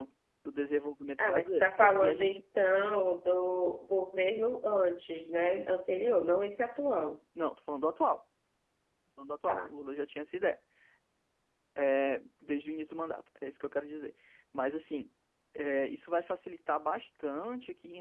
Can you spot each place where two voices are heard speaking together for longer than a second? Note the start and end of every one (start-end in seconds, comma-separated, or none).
1.2-2.4